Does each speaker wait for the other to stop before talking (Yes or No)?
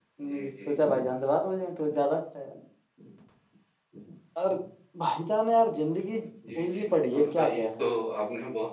No